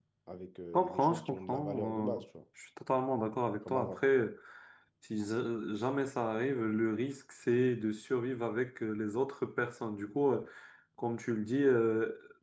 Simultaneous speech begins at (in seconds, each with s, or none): 0.7 s